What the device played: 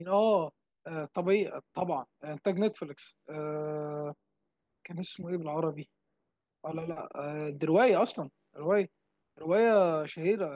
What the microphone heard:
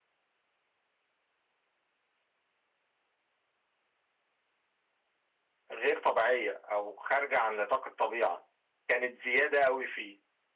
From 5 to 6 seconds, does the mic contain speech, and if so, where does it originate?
user only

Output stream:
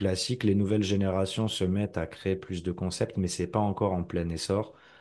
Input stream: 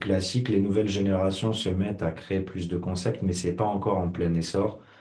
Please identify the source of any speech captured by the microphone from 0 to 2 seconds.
echo only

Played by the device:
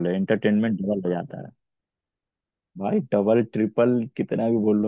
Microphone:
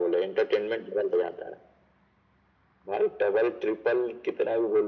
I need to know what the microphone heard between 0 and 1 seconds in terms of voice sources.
echo only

